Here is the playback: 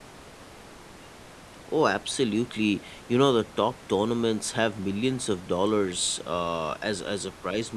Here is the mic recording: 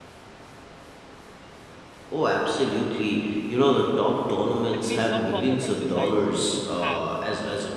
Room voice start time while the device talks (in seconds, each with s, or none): 4.7 s